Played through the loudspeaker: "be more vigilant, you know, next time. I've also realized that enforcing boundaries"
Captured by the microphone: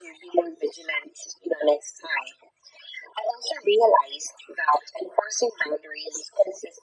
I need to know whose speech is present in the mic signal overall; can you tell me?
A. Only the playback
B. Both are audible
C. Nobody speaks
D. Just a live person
A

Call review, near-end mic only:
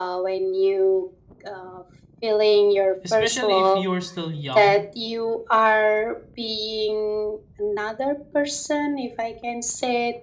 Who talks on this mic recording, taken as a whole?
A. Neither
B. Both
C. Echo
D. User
B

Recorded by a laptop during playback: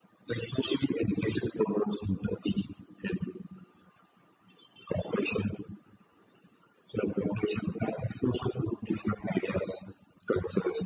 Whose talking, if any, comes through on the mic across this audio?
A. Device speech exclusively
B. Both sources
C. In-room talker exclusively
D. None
A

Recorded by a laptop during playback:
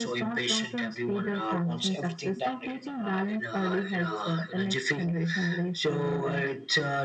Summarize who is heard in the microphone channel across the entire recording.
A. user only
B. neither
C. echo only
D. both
C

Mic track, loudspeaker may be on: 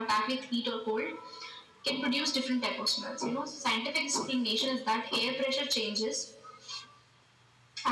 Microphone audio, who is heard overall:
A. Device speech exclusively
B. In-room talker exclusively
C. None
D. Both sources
A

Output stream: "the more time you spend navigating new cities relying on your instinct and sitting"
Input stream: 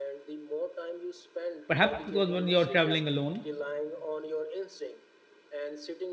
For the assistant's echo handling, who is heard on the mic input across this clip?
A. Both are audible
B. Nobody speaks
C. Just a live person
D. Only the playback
A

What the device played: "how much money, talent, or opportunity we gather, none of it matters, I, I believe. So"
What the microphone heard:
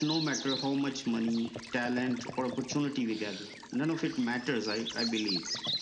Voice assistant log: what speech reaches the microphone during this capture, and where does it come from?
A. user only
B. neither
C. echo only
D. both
C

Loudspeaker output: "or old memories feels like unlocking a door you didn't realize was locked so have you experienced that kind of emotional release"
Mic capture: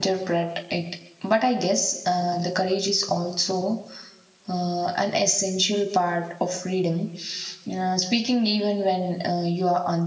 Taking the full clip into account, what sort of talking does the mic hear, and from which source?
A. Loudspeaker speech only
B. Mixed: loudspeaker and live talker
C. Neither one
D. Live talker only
D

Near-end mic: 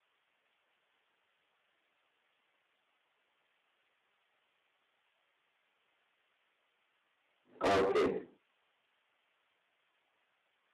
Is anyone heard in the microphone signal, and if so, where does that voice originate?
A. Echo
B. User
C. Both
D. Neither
B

